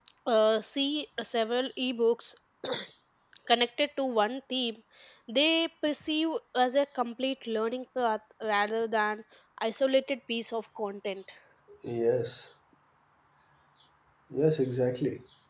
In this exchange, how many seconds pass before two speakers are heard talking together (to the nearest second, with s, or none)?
none